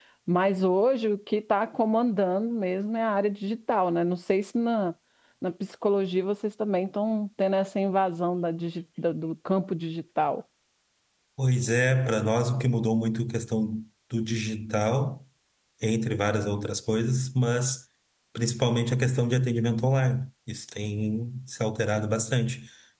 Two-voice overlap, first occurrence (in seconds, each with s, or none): none